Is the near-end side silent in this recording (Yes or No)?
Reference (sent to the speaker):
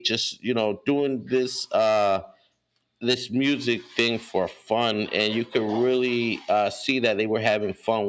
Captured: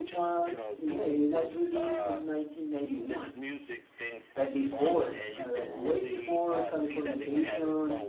No